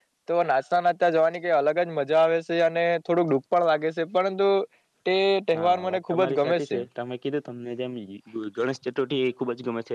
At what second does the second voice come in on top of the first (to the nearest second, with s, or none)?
6 s